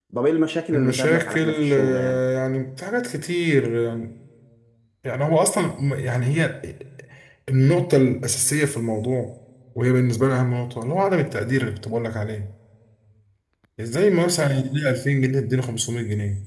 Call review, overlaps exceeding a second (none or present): present